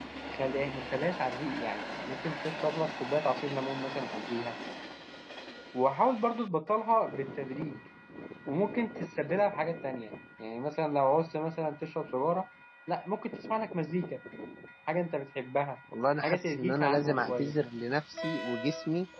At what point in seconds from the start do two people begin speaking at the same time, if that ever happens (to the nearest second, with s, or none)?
16 s